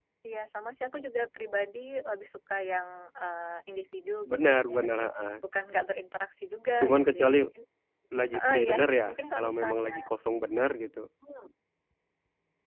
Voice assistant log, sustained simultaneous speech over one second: present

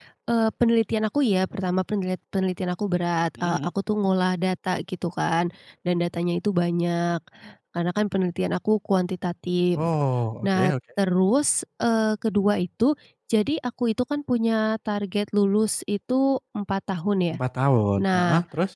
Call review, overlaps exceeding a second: none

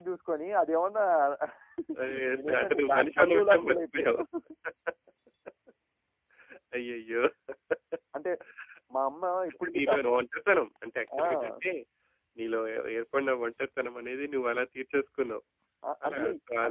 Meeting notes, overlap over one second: present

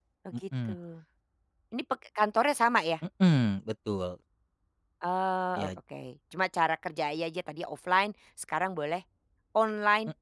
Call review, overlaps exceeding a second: none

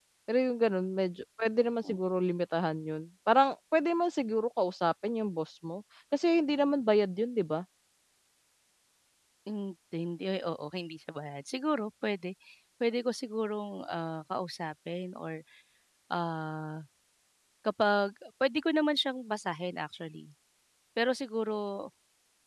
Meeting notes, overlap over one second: none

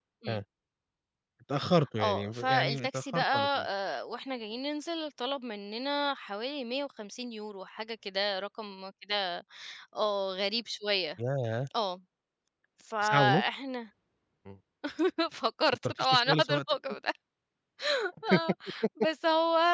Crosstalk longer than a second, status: present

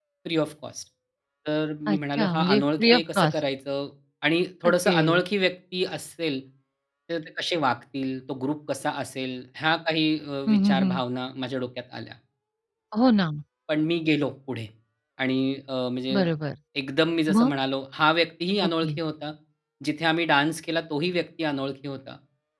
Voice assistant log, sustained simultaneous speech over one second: present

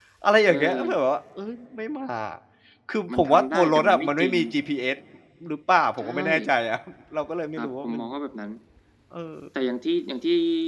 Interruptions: present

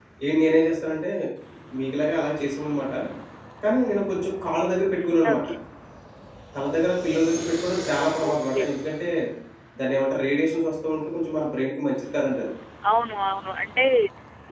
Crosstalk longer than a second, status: none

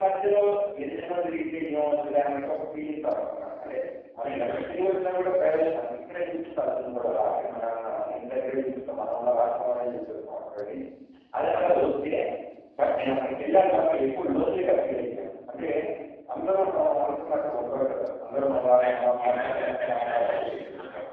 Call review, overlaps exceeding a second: present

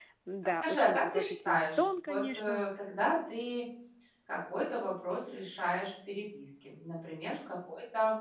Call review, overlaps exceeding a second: present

